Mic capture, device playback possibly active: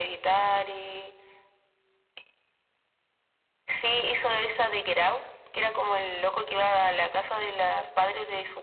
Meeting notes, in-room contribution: none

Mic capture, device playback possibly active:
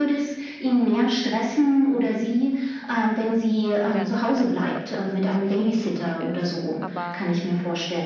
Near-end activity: present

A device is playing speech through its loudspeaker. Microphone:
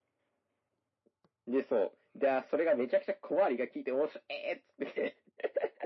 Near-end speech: none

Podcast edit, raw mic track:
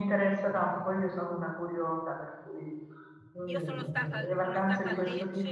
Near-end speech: present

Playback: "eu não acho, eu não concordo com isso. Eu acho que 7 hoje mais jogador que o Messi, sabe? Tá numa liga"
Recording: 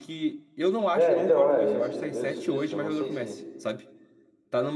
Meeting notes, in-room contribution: present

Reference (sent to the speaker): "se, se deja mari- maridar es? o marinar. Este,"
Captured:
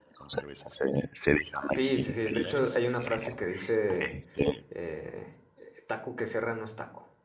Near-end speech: present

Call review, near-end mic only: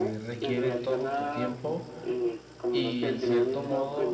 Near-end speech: present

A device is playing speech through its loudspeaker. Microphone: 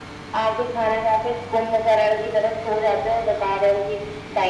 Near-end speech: none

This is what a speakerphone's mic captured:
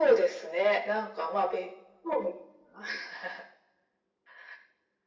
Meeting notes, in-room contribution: none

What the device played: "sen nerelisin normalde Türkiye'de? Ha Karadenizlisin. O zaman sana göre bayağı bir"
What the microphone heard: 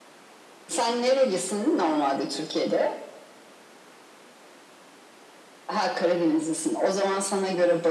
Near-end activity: none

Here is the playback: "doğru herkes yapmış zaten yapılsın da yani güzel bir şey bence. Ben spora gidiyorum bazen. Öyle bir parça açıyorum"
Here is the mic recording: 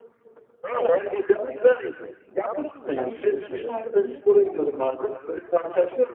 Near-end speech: present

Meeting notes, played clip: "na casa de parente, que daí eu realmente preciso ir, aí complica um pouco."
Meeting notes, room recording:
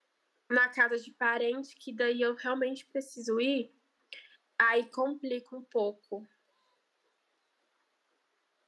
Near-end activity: none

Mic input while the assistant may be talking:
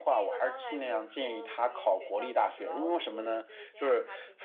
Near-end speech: present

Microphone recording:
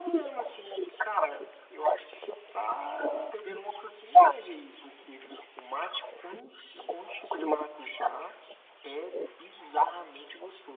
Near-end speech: none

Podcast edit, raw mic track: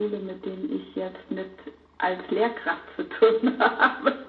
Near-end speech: none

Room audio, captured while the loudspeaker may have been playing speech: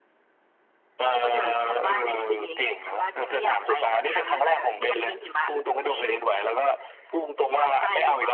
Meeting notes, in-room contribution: none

